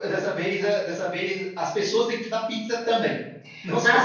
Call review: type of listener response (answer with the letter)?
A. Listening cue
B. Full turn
B